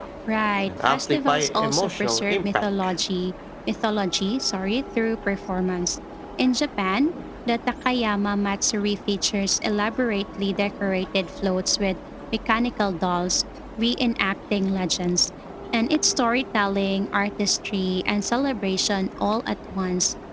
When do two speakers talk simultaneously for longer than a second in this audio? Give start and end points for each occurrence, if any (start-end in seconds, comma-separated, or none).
0.7-2.9